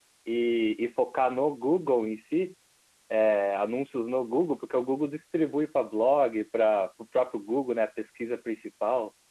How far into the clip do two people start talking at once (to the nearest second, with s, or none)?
none